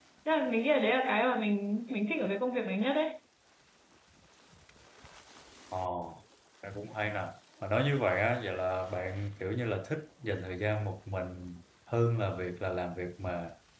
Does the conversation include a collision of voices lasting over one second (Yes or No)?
No